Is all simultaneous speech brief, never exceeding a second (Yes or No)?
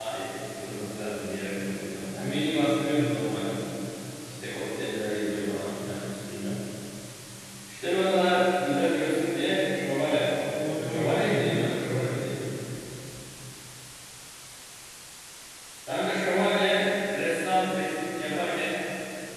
No